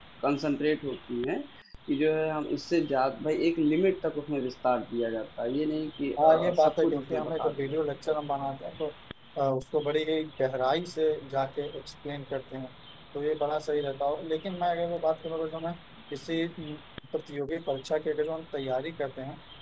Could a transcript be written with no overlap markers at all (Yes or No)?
No